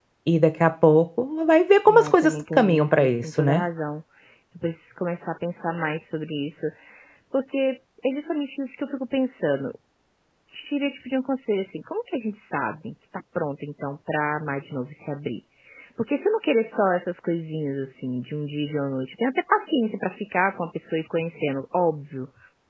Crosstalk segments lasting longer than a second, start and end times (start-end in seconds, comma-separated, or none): 1.9-3.6